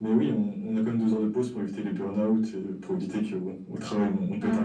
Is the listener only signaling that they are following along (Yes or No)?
No